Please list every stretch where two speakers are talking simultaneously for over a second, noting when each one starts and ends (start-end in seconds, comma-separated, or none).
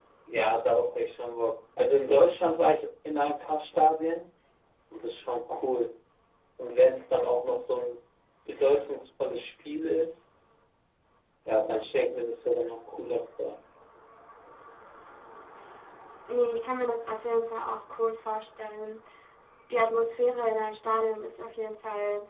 none